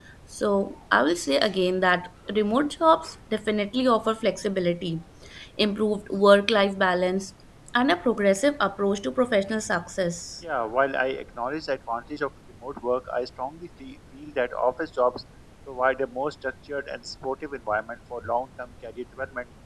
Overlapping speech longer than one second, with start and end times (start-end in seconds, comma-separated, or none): none